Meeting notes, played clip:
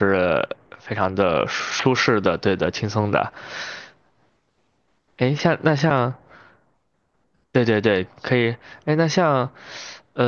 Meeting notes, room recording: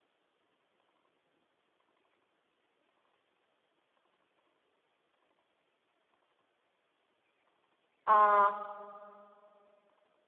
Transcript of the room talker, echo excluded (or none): 啊，